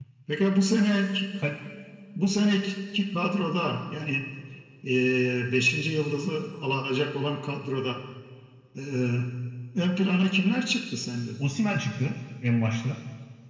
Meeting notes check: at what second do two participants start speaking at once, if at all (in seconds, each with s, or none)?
none